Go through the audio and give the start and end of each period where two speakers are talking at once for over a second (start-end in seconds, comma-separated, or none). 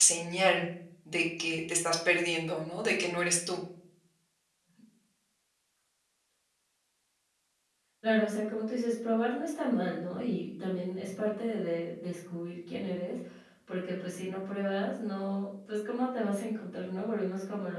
none